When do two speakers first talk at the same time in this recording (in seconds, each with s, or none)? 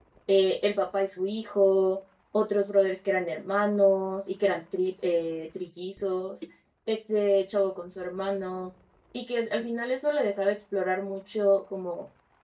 none